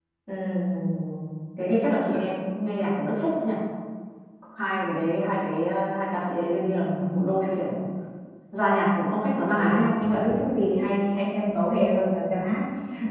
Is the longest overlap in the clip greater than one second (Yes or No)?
No